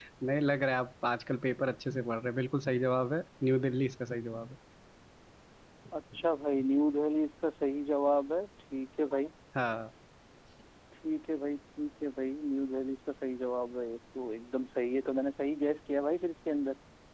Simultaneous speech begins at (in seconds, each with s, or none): none